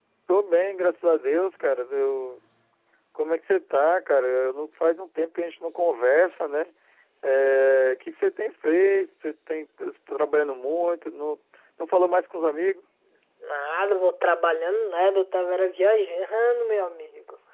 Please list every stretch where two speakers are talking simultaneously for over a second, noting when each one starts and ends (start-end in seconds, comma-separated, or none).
none